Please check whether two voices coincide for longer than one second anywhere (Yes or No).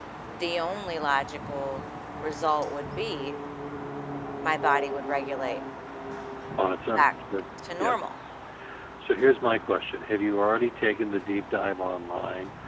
No